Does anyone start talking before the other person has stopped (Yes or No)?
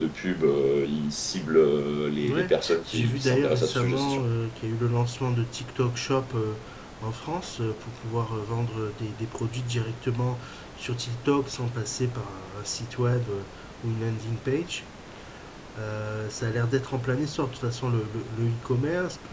Yes